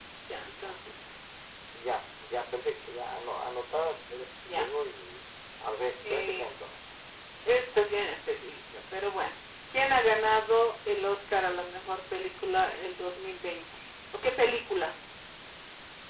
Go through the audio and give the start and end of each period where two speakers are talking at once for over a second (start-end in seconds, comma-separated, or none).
none